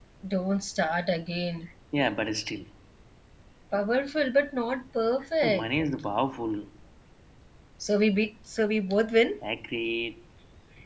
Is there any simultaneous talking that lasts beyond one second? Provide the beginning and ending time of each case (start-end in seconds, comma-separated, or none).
none